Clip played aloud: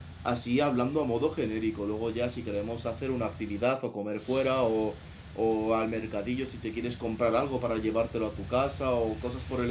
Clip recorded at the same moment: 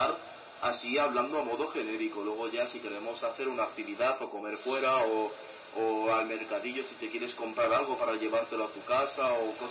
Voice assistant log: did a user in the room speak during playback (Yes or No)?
No